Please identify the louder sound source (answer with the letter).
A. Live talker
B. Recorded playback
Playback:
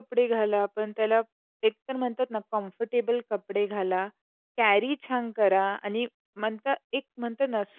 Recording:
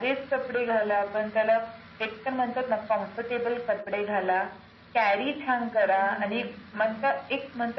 B